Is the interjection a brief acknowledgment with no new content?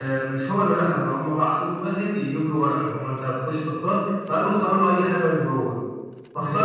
Yes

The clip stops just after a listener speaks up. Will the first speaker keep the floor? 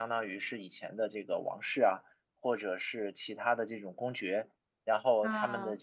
Yes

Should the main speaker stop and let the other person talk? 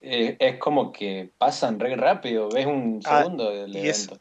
Yes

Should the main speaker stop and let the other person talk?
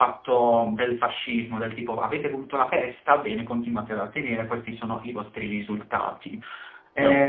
No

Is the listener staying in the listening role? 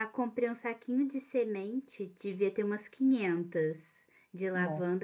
Yes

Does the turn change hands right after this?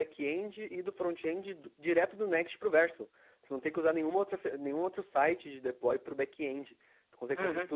Yes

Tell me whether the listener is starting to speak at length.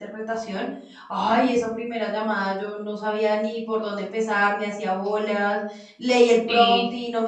No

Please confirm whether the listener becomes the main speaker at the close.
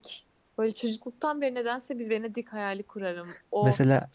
No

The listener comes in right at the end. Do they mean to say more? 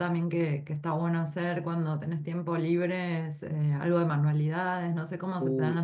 Yes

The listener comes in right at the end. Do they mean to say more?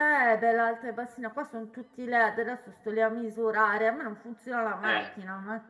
Yes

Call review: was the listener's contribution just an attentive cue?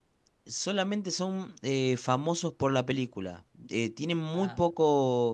Yes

